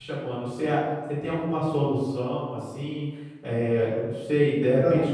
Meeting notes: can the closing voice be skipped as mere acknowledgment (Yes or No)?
Yes